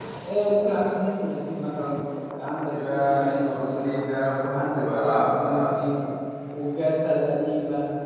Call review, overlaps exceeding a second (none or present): present